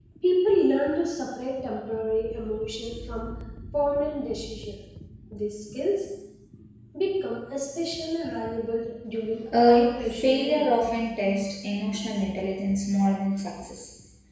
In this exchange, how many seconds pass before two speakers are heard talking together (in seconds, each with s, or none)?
9.5 s